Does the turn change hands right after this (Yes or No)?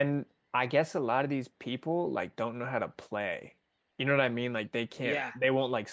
No